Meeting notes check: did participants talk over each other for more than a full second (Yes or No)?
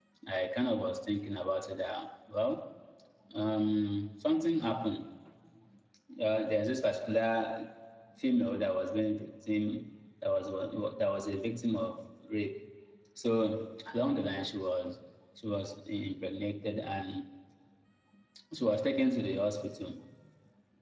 No